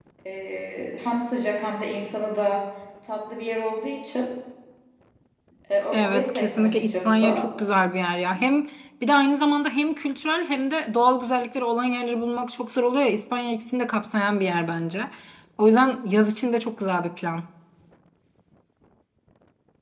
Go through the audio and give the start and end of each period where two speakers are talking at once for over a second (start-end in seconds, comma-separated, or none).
5.9-7.4